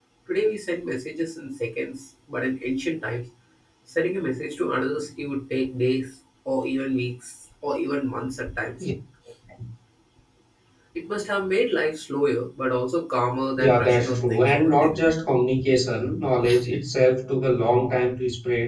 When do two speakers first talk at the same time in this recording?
14 s

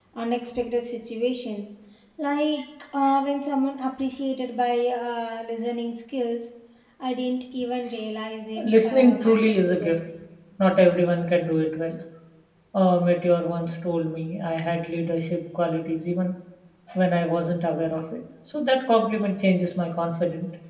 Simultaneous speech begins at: 9 s

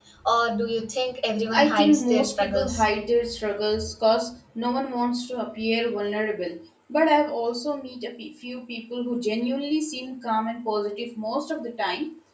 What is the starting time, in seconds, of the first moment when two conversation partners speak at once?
2 s

